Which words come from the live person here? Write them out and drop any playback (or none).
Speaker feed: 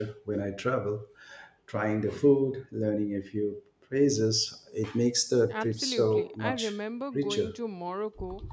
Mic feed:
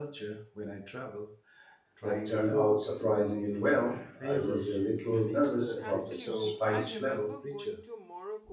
that turned out surprisingly well. I was a little nervous about the s- spice level,